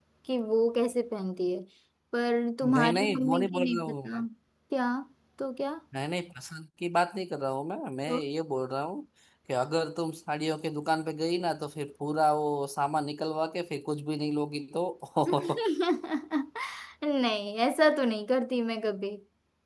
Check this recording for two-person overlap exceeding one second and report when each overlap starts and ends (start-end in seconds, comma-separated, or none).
2.6-4.2